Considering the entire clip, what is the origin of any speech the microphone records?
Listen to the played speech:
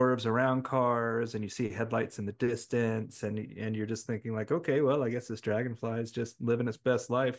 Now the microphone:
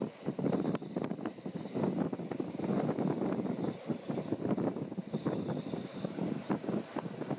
neither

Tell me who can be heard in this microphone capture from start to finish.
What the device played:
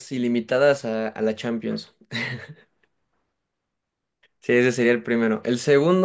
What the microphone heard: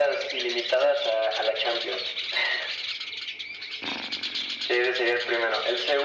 echo only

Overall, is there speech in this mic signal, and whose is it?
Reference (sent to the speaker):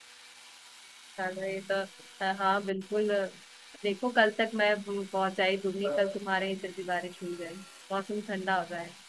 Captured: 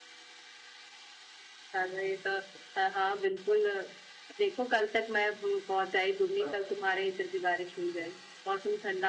echo only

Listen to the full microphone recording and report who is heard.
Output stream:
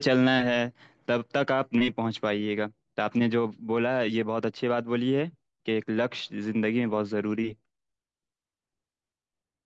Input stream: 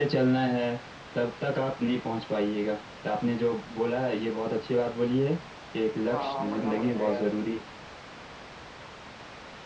both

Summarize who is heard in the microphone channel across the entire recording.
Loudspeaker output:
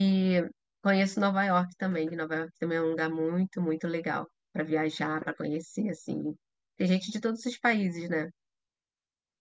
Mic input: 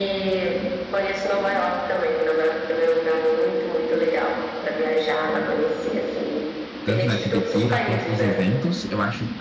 both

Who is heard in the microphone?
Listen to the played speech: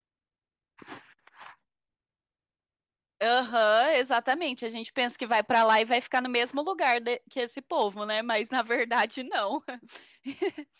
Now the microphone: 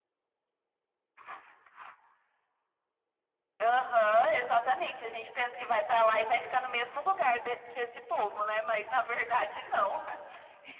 echo only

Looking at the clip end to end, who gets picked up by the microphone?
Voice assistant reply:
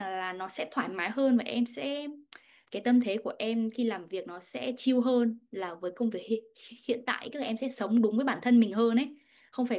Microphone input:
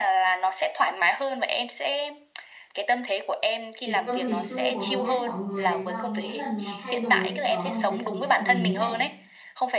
both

